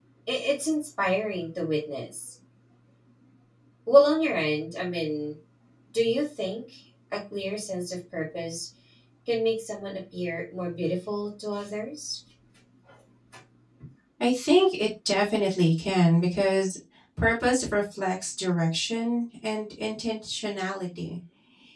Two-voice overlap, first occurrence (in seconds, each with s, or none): none